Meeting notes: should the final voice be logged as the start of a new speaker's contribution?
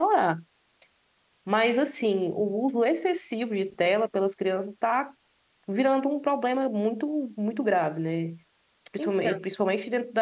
No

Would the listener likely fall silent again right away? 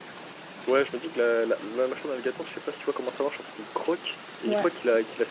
Yes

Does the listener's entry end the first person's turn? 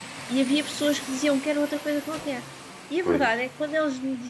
No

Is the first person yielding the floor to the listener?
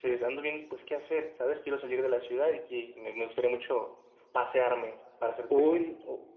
Yes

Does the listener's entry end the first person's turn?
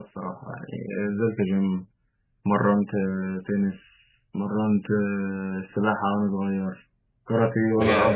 No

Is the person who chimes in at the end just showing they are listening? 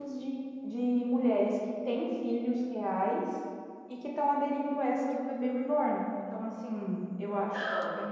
Yes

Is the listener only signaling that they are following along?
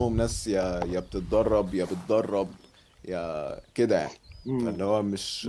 No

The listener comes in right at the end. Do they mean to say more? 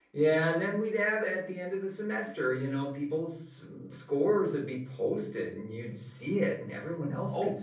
Yes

